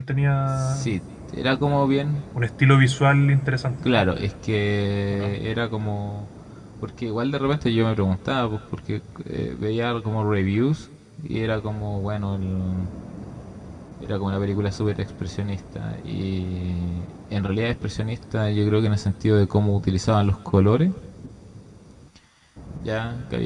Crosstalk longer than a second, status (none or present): none